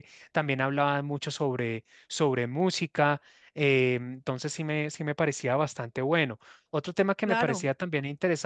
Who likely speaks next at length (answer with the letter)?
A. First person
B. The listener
A